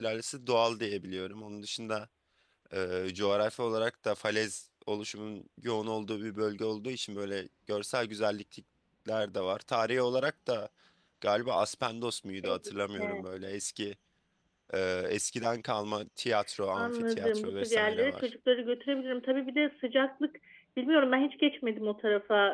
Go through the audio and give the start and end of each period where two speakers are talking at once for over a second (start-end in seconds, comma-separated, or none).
16.8-18.3